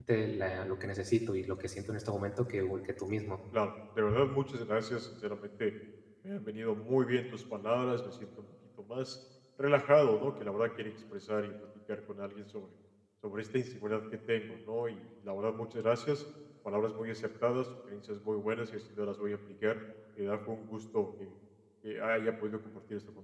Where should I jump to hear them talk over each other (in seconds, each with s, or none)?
none